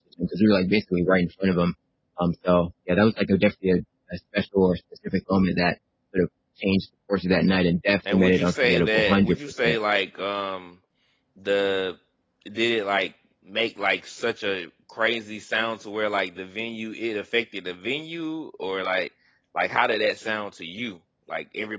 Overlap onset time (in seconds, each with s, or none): 8.1 s